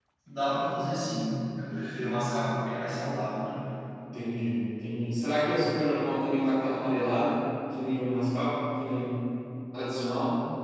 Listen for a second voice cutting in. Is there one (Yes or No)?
No